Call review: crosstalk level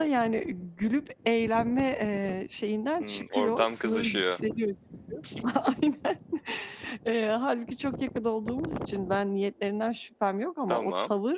present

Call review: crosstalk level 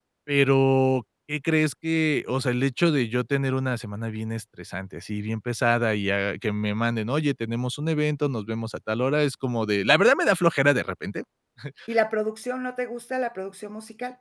none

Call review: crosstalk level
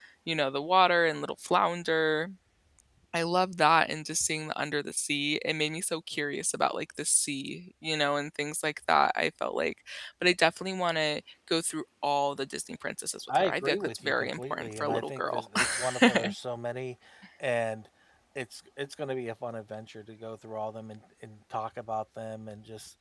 present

